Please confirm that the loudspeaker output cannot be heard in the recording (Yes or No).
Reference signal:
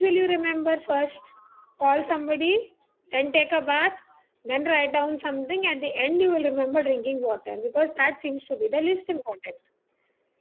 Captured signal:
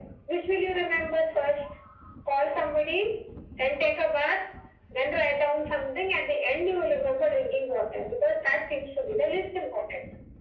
No